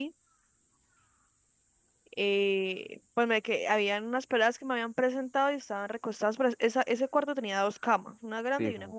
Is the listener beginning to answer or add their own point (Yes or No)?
No